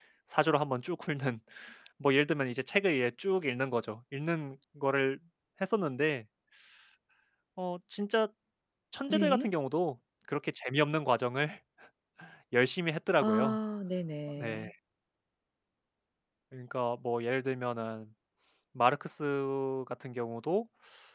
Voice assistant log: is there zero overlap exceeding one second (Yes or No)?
Yes